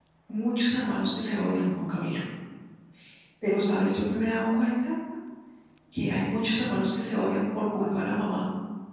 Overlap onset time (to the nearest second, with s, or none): none